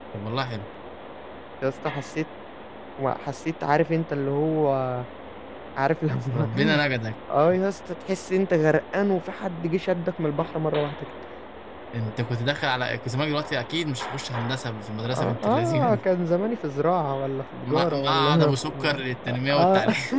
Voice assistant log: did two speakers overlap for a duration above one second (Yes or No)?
Yes